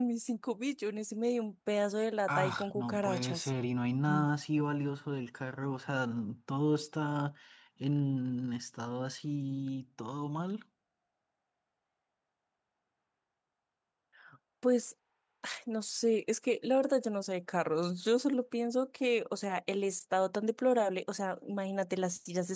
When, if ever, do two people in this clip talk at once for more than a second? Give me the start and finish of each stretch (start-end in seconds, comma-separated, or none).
2.3-3.5